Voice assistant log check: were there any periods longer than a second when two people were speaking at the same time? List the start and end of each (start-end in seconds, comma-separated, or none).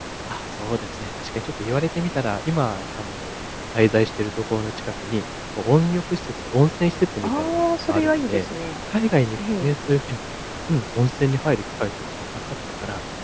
7.2-8.4